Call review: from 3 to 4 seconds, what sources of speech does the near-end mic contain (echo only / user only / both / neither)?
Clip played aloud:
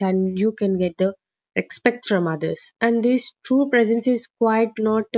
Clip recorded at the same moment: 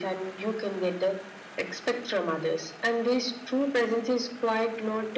echo only